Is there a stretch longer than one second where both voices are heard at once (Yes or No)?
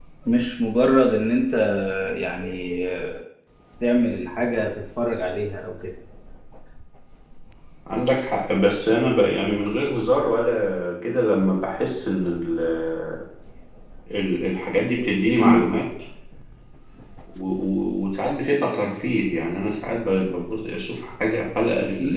No